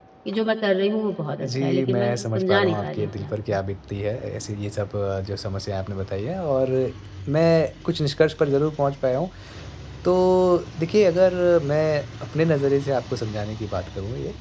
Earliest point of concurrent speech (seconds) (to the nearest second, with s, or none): 1 s